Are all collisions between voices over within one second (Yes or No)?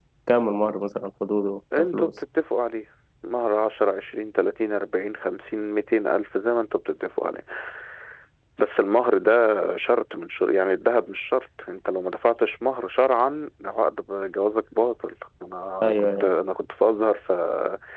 Yes